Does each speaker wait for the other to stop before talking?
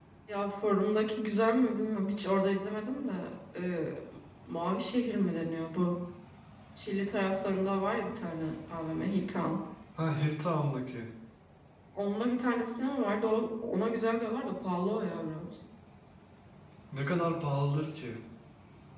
Yes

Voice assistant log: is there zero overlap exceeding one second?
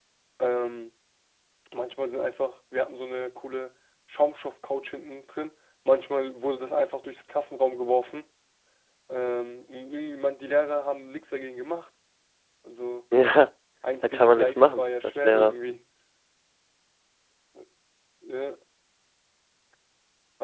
No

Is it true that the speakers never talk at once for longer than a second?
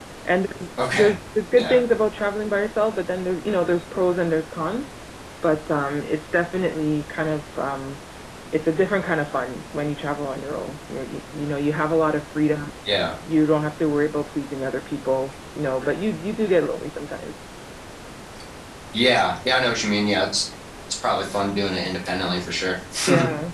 Yes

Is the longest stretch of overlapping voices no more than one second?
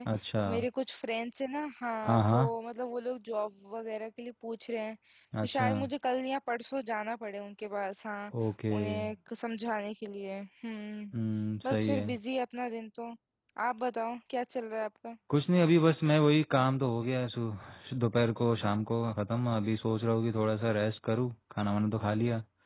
Yes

